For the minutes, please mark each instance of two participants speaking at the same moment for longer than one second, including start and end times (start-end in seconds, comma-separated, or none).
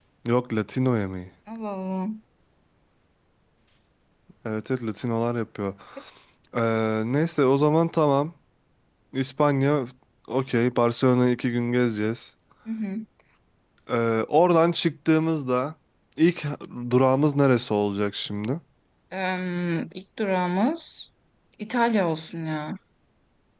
none